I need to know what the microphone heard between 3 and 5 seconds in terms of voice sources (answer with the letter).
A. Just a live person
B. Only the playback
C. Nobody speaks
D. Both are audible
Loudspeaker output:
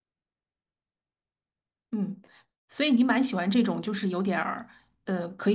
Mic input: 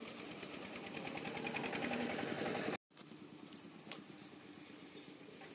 C